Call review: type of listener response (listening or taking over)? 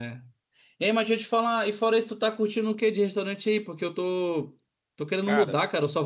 listening